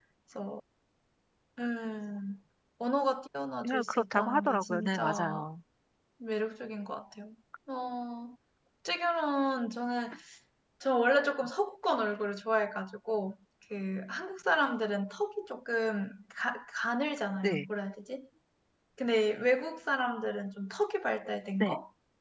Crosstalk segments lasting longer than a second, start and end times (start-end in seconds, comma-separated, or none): 3.6-5.4